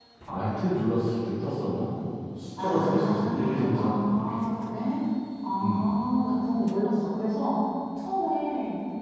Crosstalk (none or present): present